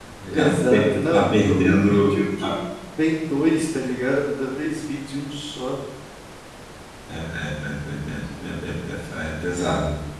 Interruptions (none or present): present